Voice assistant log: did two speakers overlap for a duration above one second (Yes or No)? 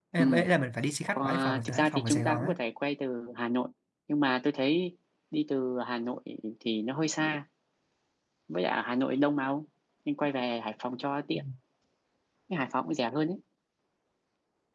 Yes